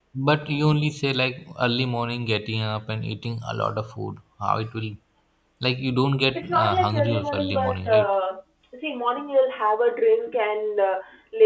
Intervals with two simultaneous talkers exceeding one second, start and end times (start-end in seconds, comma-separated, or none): 6.3-8.1